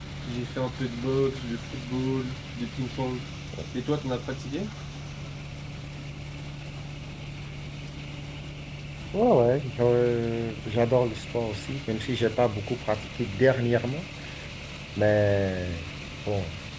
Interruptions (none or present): none